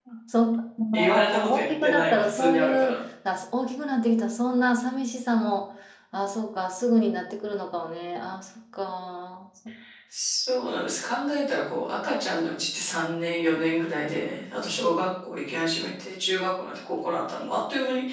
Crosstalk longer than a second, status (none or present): present